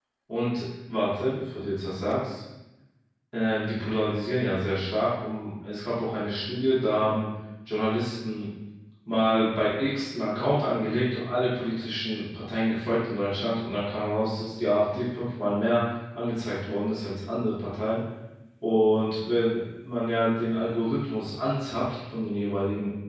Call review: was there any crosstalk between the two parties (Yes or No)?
No